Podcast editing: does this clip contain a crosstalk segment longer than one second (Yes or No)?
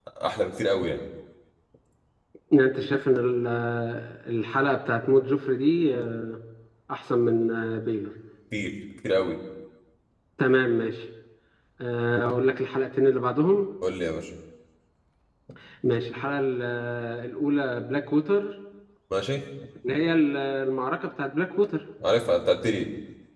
No